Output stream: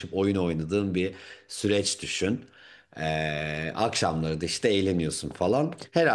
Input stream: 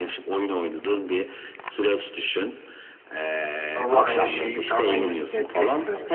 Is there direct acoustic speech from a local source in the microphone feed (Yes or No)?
Yes